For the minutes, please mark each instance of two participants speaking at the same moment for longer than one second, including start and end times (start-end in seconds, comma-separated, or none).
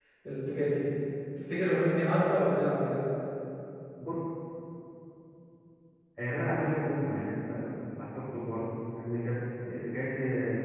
none